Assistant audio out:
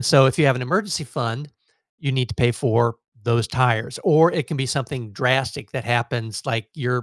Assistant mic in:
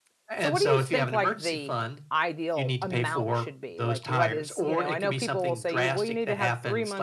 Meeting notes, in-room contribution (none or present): present